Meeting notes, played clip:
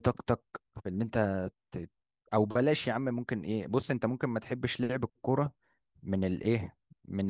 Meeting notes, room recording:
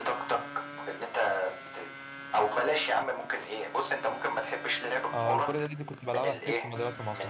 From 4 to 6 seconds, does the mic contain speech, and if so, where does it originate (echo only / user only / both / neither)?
both